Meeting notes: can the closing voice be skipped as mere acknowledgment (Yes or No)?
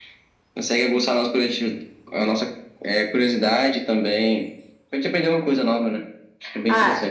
No